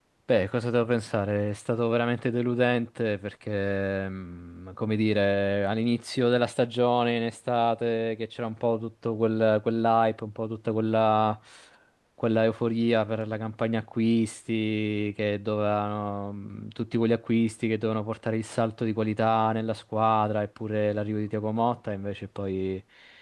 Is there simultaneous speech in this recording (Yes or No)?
No